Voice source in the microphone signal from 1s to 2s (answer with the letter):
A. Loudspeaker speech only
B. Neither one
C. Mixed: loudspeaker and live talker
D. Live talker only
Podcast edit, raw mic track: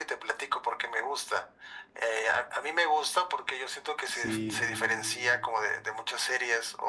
A